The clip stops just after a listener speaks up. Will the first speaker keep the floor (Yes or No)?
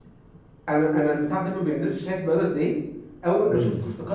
Yes